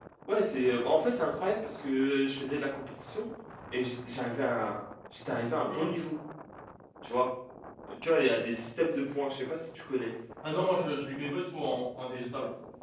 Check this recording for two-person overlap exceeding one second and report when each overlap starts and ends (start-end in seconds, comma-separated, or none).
none